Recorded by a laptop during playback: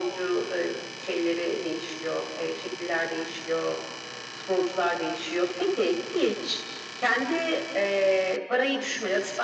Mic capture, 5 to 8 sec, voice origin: echo only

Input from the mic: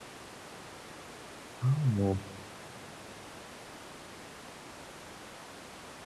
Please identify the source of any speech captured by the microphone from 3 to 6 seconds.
neither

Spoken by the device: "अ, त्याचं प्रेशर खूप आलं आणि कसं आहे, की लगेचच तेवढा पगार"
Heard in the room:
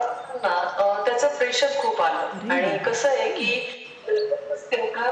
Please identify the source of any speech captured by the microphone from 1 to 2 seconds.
echo only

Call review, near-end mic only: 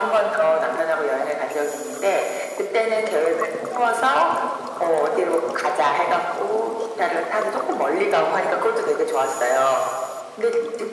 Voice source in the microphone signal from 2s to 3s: echo only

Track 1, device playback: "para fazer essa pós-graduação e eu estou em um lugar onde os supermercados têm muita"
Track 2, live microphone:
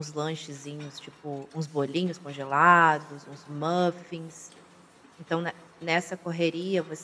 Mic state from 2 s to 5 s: user only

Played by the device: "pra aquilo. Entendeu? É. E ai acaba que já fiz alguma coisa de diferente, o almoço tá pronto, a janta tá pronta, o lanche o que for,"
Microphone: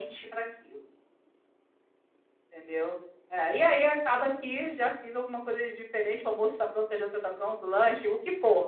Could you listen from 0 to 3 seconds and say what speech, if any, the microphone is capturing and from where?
echo only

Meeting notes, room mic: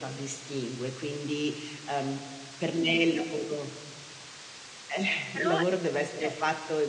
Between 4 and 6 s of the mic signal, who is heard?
both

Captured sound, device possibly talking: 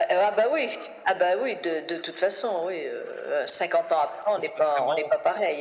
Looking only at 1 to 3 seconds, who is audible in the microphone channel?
echo only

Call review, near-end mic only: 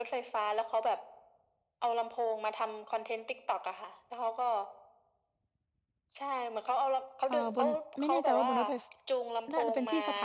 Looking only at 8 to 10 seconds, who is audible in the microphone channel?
both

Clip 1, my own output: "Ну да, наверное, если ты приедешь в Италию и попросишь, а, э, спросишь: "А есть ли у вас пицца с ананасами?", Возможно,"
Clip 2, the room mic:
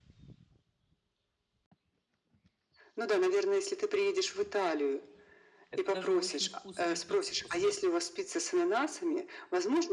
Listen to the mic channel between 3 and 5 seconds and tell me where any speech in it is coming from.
echo only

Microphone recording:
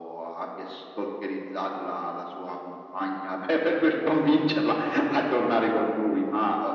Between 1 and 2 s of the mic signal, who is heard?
echo only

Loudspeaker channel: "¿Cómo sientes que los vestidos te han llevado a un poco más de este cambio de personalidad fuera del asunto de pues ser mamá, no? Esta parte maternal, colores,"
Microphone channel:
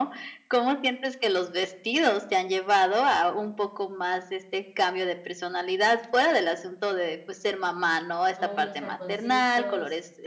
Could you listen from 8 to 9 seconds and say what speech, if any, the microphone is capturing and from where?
both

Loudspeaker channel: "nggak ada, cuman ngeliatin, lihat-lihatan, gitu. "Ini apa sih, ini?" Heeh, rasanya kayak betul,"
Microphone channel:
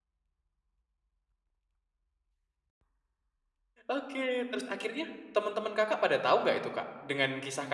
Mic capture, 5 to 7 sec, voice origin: user only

